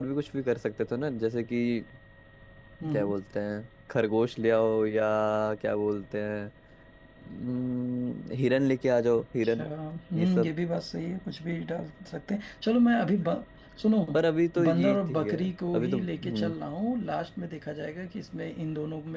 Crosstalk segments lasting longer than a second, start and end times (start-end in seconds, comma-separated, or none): 14.7-16.5